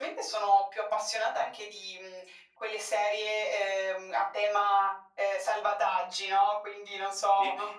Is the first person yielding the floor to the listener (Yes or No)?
No